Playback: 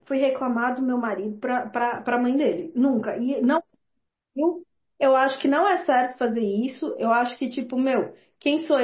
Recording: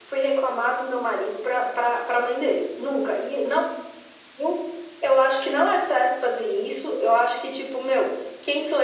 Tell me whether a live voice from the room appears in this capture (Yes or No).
No